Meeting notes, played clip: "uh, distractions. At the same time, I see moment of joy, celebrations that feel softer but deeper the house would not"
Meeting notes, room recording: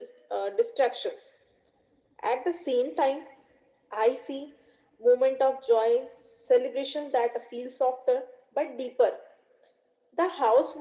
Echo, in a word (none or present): present